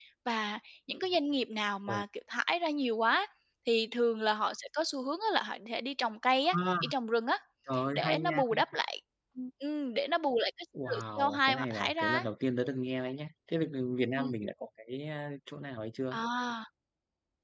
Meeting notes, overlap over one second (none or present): present